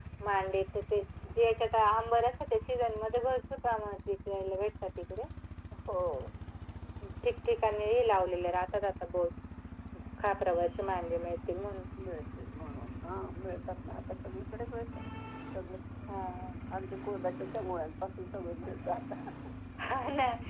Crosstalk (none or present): none